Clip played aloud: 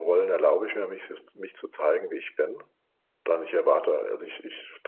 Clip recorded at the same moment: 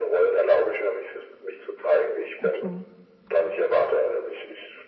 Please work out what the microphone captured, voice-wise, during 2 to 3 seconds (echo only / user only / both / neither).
both